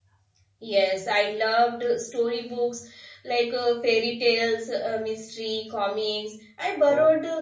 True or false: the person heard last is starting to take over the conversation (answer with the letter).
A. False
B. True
A